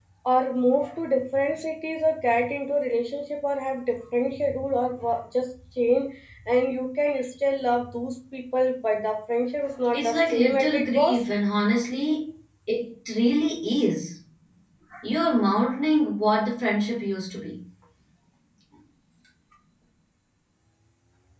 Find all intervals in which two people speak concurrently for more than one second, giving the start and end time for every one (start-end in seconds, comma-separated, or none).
9.9-11.2